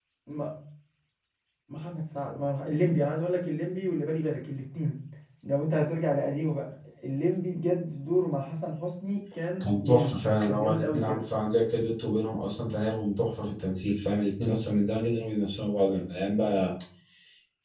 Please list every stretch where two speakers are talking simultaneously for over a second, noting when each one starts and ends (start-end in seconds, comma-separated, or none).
9.6-11.2